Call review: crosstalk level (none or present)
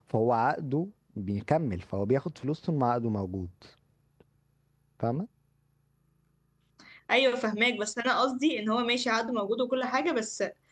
none